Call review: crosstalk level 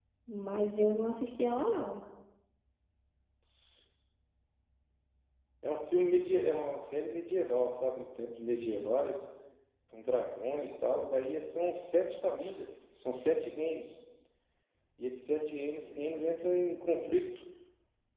none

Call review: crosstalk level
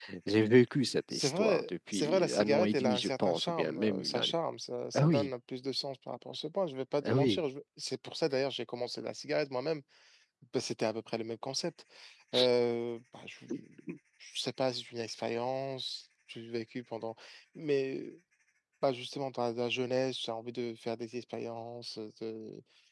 present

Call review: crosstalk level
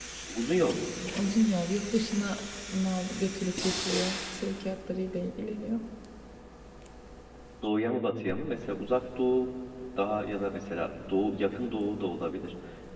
none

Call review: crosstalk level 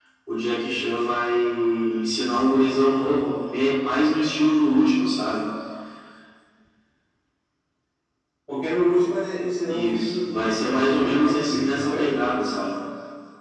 present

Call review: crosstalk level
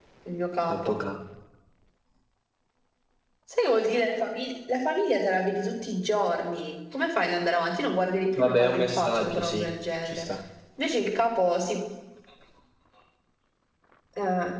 present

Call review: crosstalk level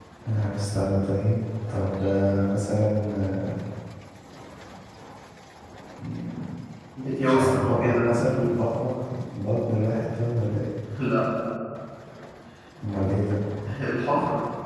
present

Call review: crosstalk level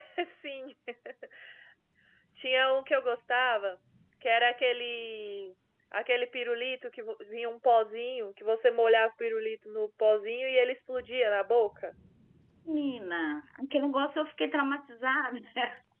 none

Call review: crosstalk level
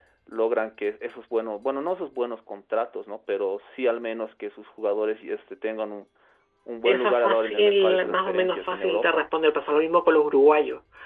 present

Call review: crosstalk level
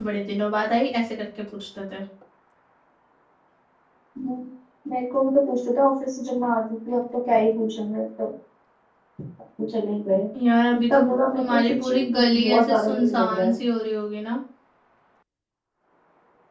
present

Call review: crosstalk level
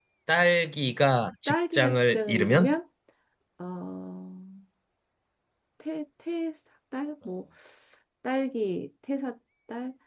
present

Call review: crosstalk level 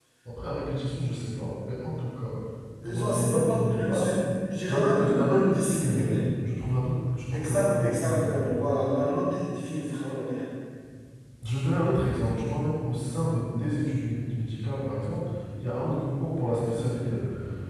present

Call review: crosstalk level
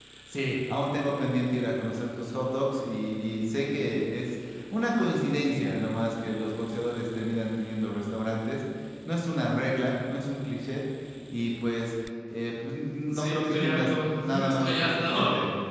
present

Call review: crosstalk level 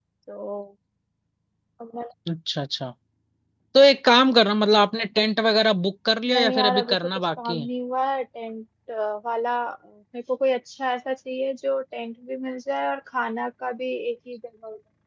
present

